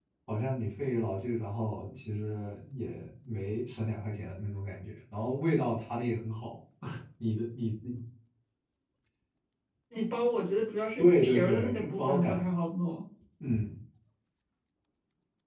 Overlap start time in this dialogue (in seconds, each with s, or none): 11.0 s